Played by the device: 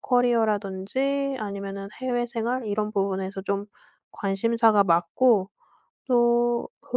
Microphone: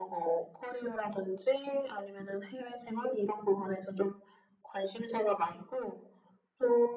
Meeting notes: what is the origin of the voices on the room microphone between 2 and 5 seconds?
echo only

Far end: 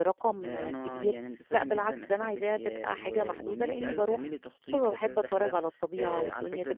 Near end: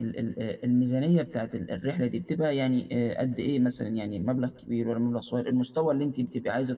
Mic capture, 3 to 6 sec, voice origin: user only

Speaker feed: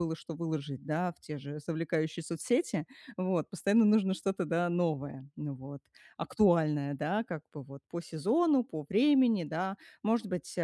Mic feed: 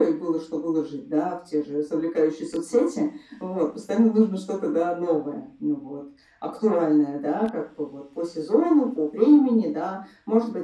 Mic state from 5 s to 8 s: echo only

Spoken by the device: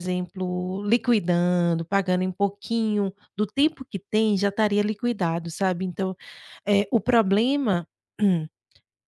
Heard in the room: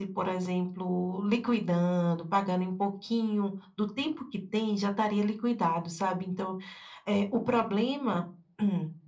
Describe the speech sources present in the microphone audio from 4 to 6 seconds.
echo only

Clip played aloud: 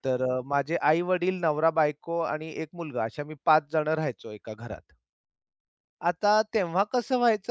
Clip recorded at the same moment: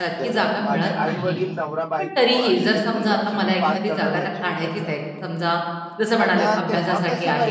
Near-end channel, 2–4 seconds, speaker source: both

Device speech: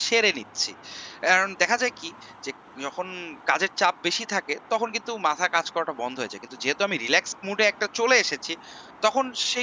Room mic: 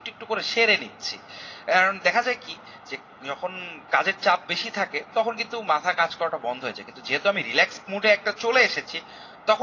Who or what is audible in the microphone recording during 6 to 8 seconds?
echo only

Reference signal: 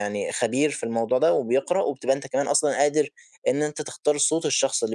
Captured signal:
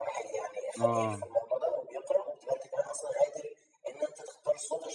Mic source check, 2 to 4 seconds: echo only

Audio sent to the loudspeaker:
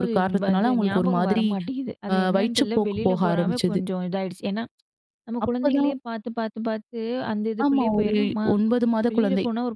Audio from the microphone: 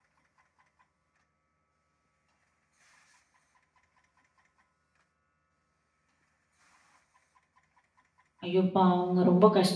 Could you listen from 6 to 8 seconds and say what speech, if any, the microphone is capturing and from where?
neither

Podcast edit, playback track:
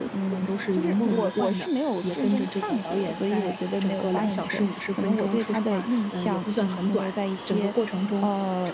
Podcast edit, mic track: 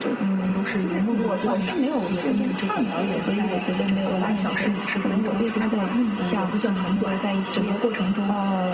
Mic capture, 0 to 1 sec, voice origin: echo only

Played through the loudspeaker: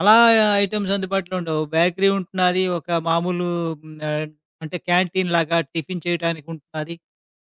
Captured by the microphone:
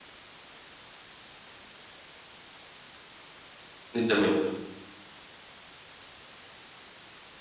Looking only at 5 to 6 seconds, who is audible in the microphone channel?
neither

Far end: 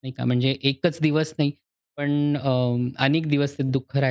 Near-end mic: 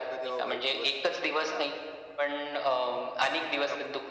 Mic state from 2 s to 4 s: both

